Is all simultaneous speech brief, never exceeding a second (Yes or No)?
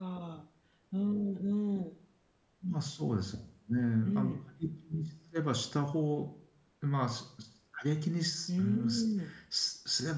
Yes